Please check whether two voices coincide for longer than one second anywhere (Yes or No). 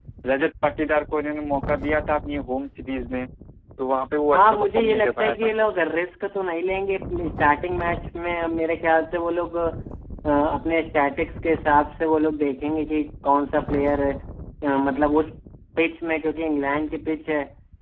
Yes